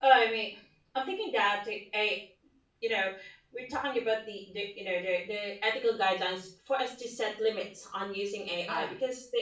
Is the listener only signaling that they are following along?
Yes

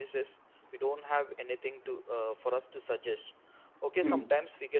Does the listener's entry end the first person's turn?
No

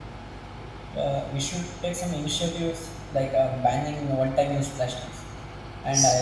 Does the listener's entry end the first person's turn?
No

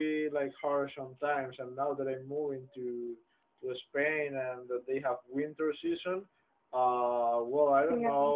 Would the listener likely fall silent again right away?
Yes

